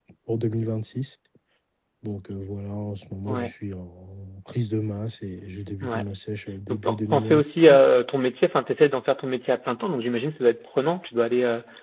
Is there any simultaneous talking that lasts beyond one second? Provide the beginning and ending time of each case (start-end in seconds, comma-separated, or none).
6.7-7.9